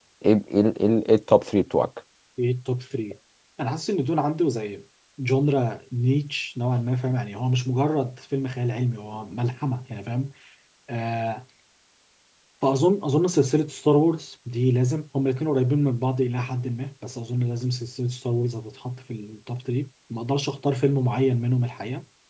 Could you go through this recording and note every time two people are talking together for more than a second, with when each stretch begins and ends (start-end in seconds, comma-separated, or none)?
none